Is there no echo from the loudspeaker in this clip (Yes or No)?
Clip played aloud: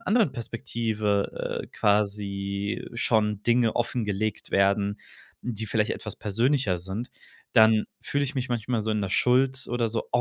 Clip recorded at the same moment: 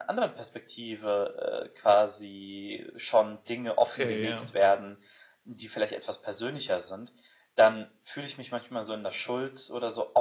No